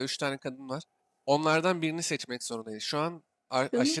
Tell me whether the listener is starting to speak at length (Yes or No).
No